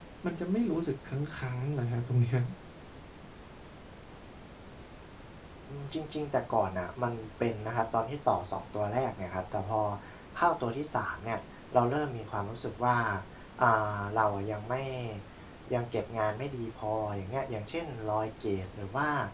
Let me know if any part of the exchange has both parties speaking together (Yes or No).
No